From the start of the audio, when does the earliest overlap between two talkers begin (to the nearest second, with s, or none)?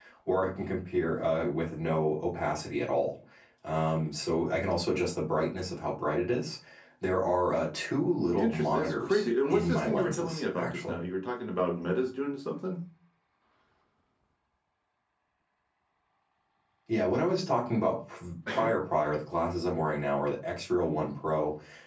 8 s